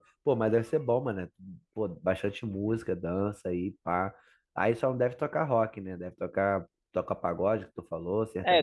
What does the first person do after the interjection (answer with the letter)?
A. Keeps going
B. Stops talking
B